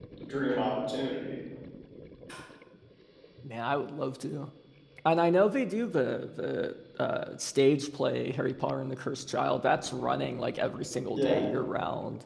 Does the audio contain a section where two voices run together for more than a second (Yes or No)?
No